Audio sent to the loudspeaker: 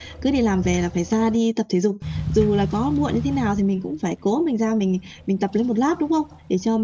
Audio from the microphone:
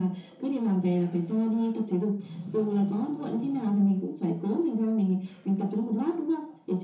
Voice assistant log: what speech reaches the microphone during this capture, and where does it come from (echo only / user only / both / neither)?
echo only